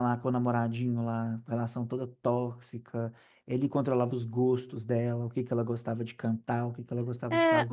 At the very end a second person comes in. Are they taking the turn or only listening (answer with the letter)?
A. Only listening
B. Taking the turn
B